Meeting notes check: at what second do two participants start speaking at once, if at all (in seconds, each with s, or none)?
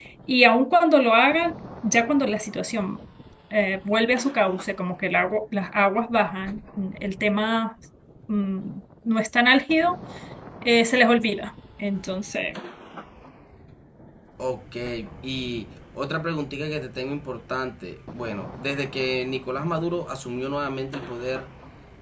none